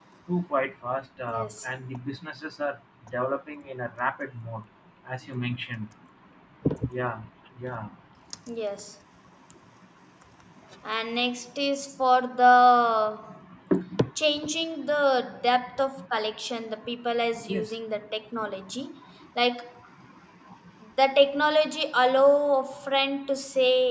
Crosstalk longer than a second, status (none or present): none